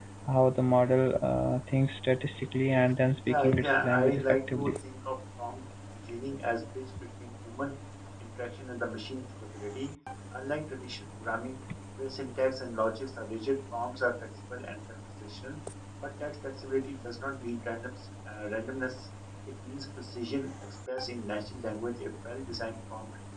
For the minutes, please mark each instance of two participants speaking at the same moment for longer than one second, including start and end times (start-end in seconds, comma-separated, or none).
3.3-4.7